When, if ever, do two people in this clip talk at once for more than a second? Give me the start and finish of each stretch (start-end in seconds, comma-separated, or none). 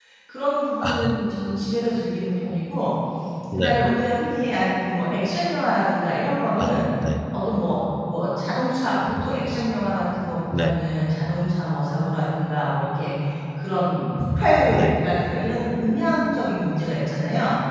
none